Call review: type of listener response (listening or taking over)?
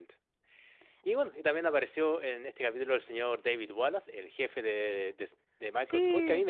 listening